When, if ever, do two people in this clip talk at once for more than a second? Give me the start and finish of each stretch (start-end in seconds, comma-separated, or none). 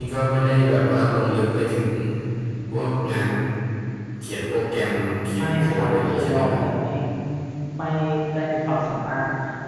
5.3-6.6